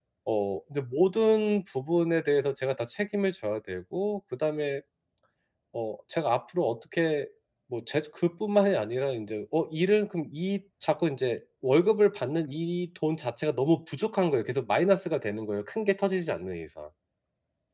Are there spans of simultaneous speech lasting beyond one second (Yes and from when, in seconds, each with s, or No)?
No